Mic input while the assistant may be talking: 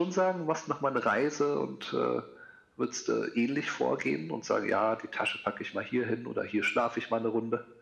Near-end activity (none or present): none